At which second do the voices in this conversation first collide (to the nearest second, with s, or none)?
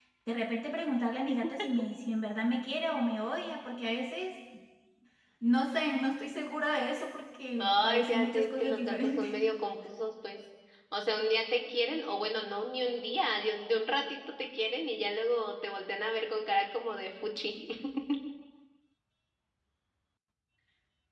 8 s